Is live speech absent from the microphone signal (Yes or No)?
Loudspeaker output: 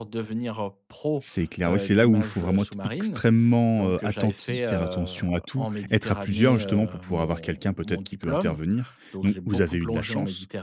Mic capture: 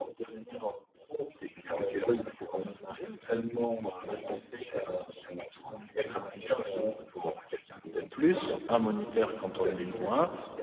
No